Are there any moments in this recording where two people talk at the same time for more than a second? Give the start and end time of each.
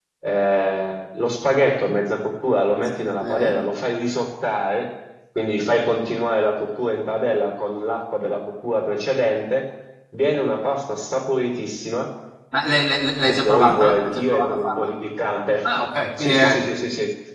13.3-14.9

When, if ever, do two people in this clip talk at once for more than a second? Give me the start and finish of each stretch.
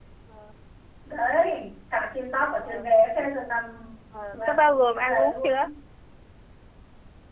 4.3-5.7

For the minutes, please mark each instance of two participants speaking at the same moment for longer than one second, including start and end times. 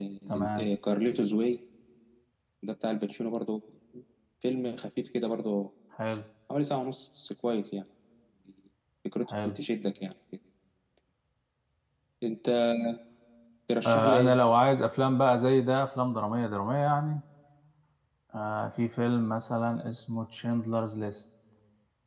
none

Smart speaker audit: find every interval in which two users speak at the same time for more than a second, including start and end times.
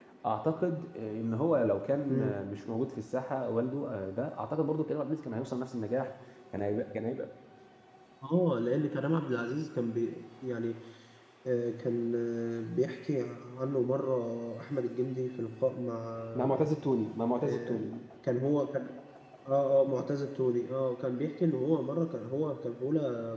none

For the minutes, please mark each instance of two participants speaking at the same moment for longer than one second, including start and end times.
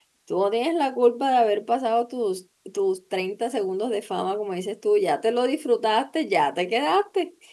none

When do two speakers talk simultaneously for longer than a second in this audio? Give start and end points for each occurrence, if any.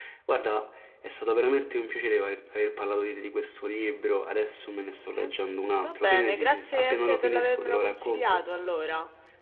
5.8-8.5

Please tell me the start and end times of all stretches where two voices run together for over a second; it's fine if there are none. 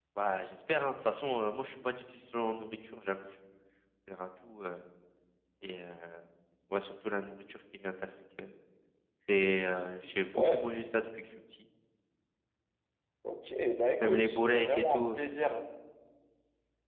14.0-15.2

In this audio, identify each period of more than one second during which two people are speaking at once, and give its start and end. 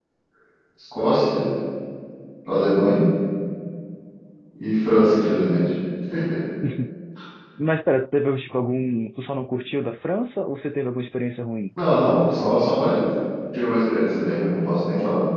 none

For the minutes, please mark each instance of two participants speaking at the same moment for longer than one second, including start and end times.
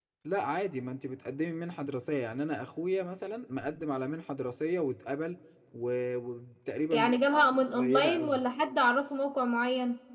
6.9-8.4

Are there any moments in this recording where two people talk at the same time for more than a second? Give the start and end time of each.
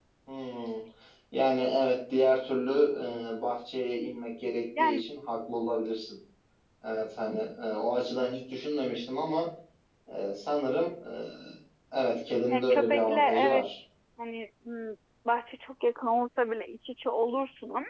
12.5-13.8

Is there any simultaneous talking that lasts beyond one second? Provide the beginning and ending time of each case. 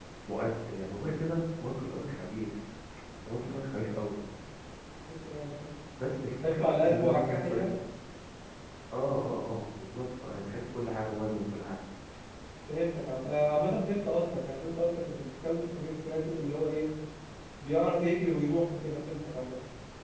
6.4-7.8

